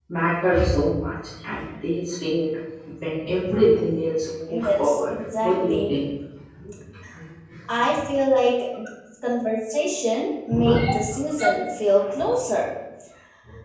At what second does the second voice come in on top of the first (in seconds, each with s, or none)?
4.5 s